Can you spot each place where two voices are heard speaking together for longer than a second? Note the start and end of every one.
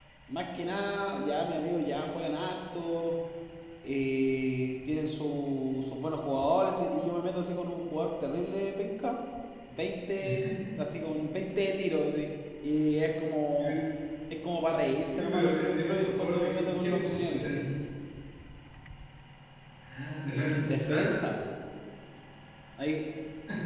15.2-17.5

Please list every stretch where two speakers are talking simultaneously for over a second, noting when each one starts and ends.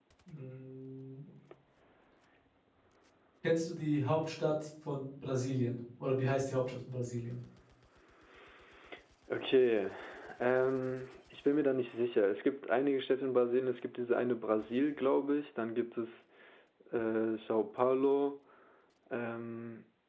none

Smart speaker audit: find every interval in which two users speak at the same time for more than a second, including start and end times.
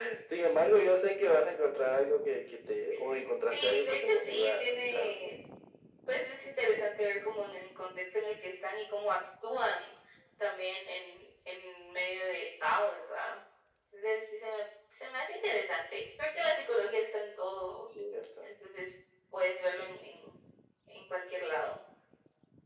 3.5-5.2

